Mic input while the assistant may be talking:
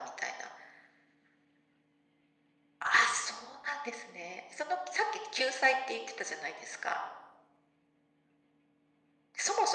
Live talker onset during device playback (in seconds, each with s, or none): none